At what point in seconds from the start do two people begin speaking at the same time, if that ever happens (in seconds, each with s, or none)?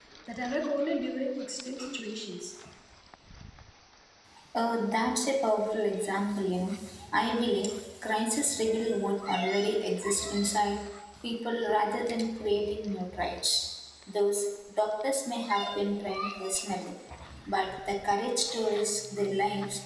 none